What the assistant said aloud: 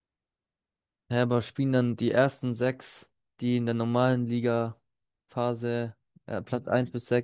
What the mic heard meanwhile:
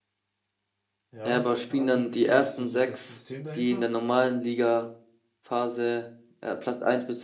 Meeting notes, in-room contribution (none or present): present